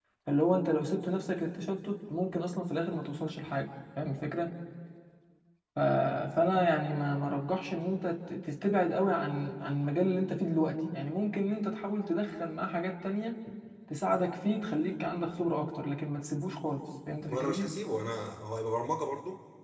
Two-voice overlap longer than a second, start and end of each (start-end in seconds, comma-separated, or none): none